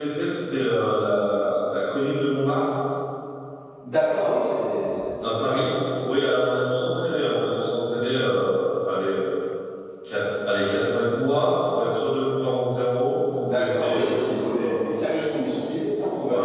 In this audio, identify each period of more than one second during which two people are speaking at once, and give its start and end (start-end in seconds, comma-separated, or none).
13.5-14.7